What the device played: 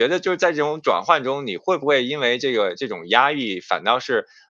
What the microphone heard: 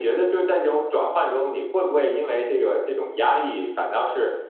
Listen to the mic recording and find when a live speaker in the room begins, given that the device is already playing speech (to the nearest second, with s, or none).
none